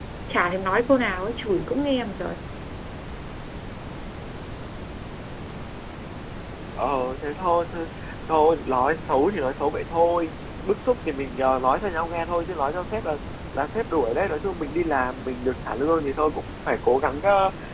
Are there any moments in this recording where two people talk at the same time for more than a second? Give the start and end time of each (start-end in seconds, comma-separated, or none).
none